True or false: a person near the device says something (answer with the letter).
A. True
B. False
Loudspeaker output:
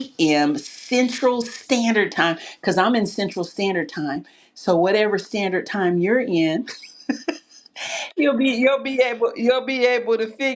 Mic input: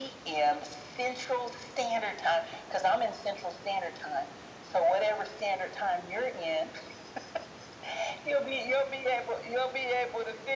B